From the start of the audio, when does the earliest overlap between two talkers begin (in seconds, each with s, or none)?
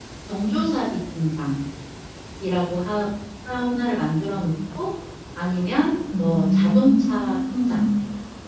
6.2 s